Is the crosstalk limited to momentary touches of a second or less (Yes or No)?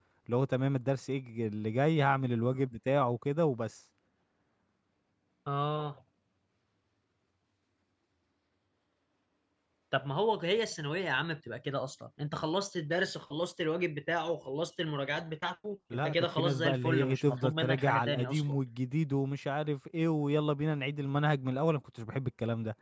No